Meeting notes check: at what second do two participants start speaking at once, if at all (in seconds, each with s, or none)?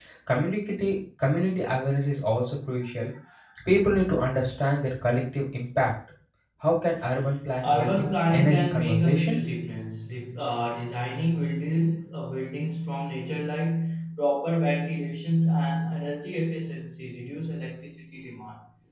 7.6 s